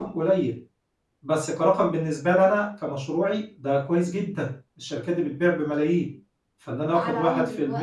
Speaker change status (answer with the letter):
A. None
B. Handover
B